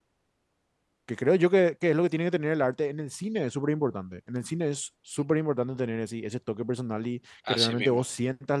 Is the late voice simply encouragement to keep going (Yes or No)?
Yes